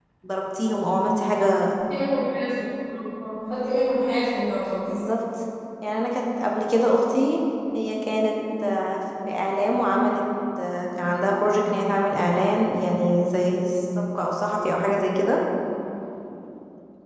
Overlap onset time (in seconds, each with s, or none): none